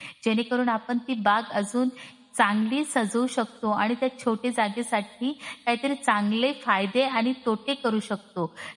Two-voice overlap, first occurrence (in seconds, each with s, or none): none